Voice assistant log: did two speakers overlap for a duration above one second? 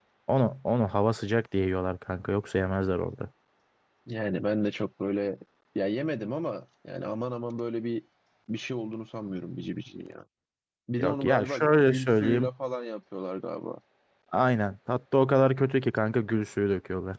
Yes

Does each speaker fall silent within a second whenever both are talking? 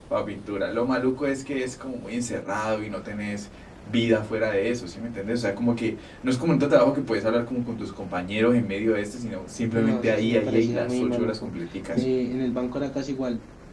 No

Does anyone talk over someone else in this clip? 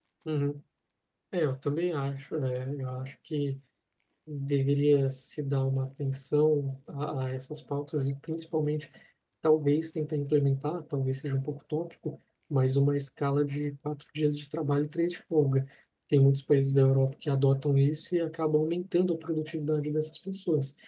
No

